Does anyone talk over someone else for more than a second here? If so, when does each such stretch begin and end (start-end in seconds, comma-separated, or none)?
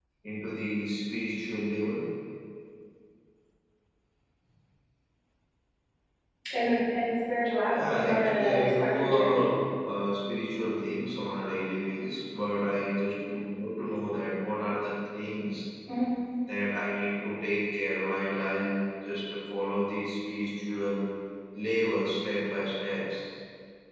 7.8-9.5